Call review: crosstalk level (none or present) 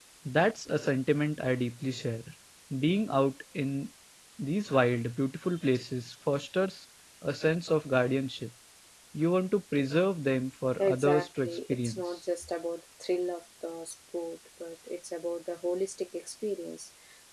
present